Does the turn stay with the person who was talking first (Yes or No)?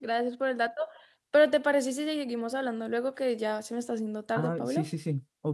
No